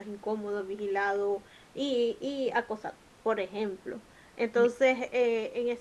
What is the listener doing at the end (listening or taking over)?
listening